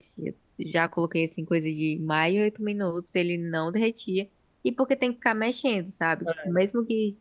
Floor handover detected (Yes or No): No